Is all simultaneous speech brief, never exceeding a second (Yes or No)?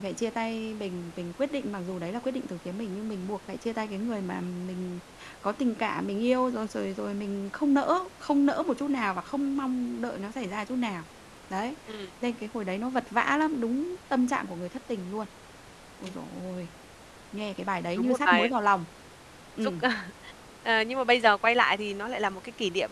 Yes